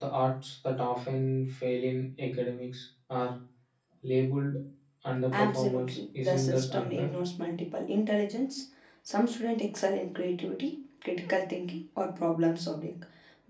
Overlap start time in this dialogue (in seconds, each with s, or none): 5.4 s